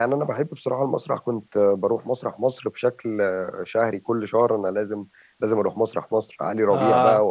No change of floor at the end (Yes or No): Yes